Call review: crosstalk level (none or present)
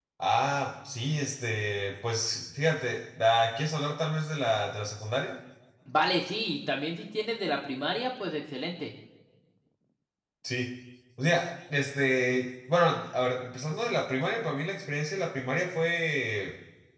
none